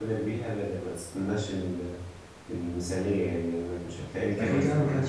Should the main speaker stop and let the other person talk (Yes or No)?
Yes